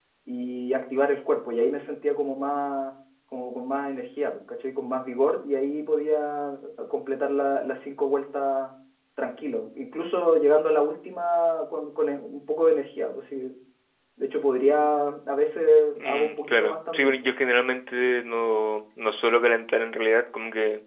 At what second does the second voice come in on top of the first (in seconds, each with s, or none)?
16.0 s